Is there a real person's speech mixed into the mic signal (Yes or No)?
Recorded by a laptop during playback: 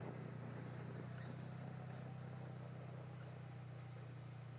No